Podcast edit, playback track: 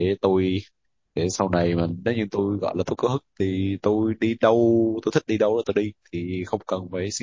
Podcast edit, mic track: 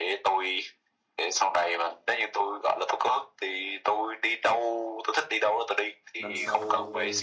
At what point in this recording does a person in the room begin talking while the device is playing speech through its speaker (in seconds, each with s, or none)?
6.2 s